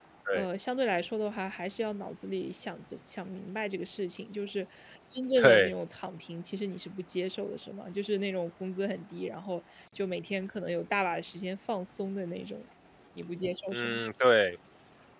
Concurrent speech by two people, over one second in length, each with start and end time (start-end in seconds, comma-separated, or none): none